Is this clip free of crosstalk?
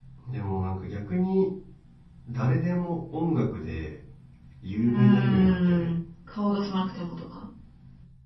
No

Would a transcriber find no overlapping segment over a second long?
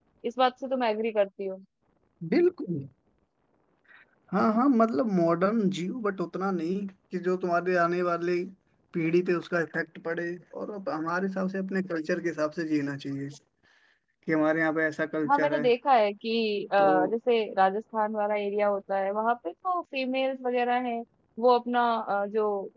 Yes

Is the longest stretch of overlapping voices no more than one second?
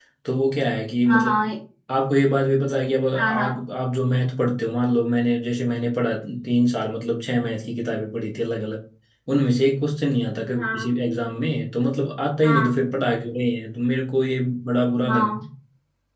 Yes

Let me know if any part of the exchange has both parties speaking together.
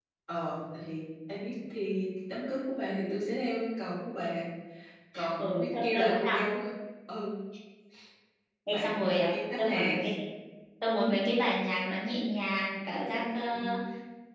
Yes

